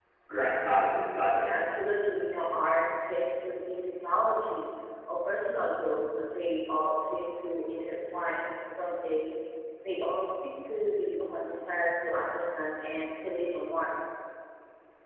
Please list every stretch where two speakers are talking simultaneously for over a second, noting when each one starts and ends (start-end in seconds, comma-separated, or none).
0.7-1.9